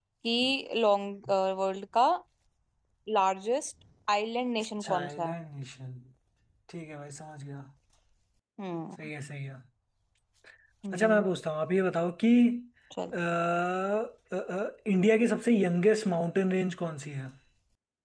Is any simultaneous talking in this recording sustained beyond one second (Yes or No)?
No